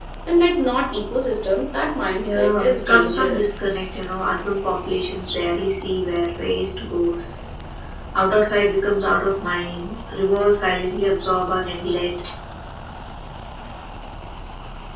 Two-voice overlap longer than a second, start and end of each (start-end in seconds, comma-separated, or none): 2.2-3.5